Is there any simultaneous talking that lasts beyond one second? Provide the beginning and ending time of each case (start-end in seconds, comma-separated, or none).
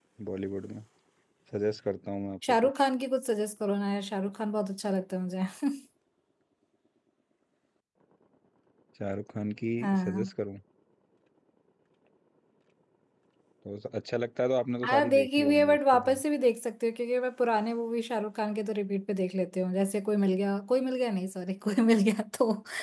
14.8-16.2